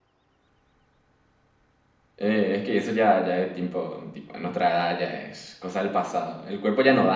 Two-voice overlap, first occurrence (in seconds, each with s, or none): none